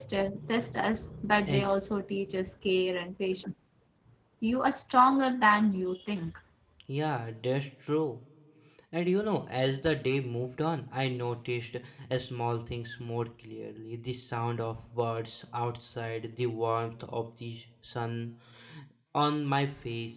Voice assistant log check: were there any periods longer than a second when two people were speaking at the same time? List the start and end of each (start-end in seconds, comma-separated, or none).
none